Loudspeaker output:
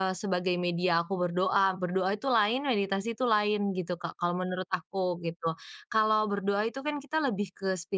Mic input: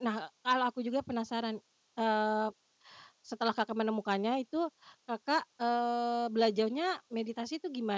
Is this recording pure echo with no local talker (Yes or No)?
No